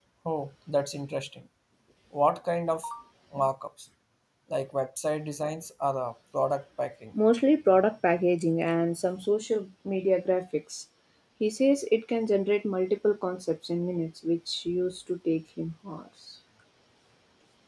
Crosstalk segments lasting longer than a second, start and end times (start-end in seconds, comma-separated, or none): none